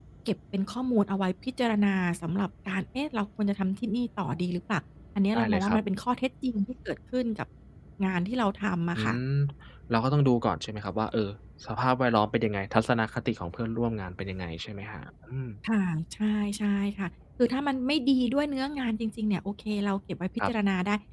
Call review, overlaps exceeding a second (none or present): none